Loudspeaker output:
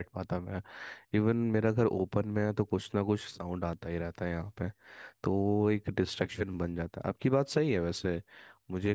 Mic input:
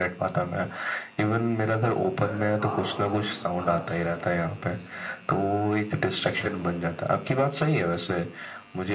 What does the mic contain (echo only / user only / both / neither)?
both